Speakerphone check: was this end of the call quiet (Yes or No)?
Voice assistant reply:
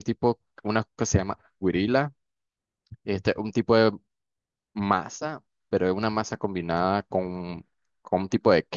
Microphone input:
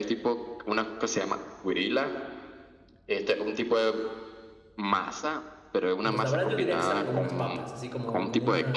No